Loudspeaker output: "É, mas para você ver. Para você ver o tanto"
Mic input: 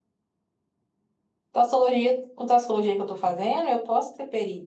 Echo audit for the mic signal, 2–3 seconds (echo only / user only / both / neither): user only